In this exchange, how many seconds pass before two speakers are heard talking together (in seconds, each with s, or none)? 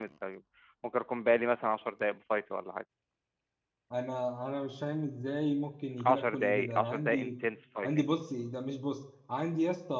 6.0 s